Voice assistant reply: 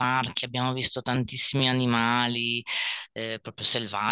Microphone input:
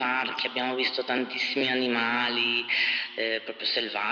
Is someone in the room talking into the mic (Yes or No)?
No